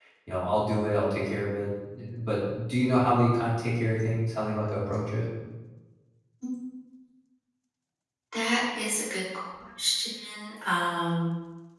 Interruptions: none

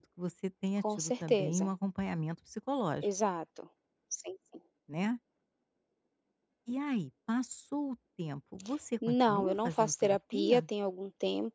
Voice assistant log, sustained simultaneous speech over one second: present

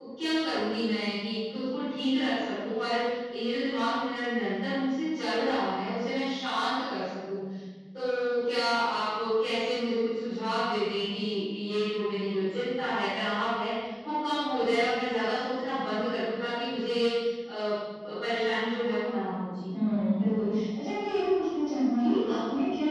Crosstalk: none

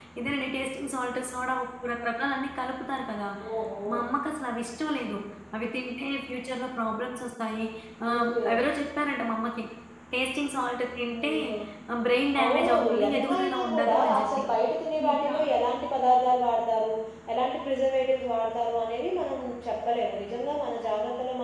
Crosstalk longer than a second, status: present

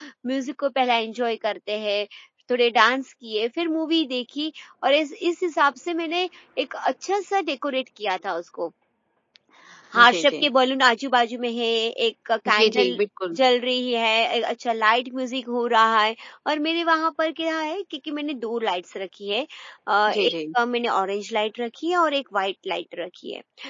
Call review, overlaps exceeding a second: none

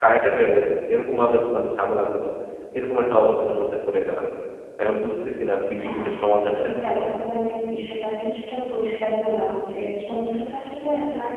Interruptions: present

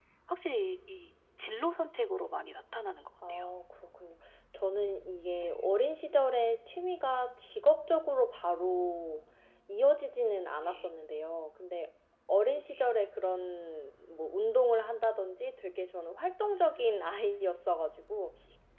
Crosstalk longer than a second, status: none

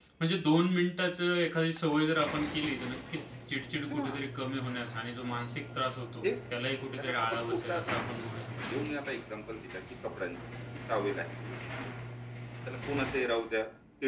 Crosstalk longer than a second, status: present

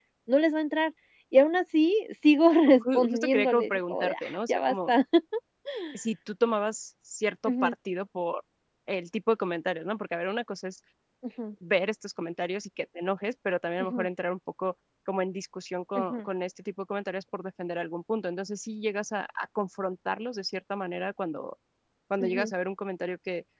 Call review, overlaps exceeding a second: present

